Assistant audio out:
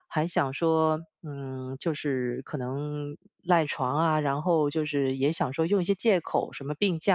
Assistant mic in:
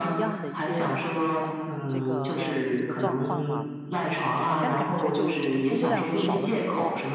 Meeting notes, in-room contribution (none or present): present